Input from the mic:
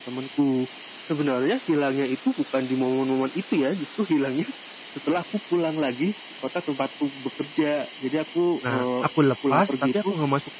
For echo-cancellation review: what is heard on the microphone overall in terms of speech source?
both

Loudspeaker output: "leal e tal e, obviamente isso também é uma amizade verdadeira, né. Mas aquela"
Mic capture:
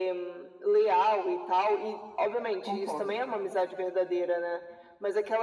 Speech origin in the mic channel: both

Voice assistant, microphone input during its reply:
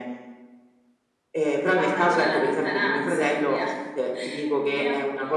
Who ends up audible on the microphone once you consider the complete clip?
echo only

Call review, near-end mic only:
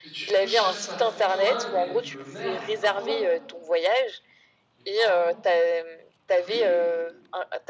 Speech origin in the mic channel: both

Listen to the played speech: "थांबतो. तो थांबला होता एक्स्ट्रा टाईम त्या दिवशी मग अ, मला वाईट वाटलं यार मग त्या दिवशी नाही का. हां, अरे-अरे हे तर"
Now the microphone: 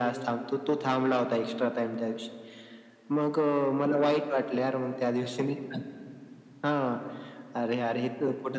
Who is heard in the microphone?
echo only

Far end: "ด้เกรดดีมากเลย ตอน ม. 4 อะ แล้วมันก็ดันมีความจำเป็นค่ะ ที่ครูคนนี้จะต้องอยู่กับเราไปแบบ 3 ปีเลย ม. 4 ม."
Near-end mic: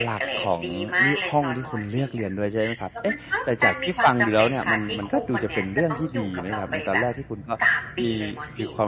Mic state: both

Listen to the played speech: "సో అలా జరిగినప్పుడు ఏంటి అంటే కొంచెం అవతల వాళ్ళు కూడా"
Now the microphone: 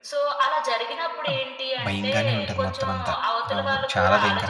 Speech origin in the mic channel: both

